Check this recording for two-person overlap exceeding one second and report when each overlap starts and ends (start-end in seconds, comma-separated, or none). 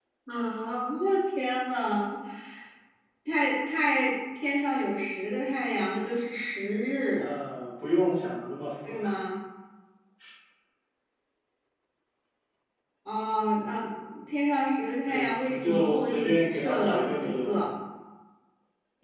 15.1-17.6